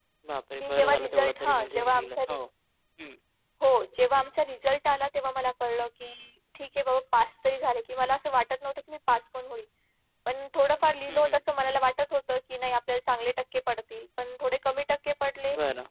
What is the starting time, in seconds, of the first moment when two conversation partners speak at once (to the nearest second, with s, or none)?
1 s